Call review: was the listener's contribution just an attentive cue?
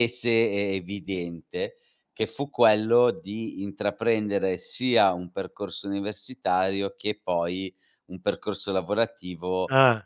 Yes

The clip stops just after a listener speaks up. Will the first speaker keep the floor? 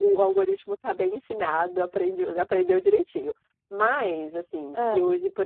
Yes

